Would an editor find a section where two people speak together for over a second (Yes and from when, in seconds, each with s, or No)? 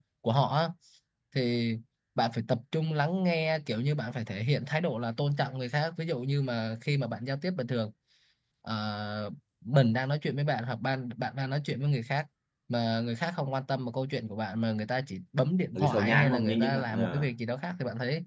Yes, from 15.7 s